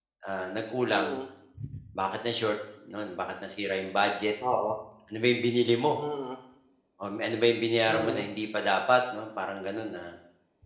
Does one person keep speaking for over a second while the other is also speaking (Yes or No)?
No